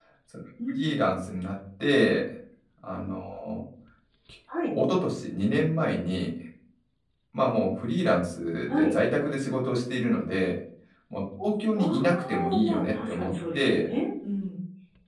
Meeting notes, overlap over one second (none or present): present